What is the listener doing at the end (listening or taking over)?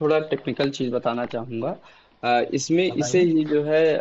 listening